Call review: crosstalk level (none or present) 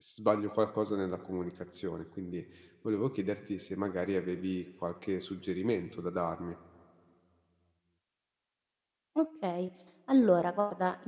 none